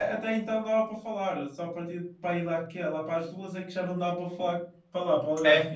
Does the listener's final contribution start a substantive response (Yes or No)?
Yes